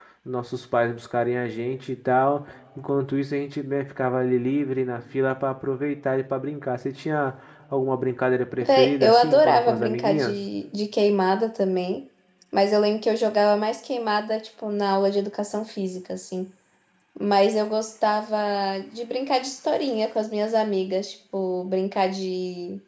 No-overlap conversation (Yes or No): No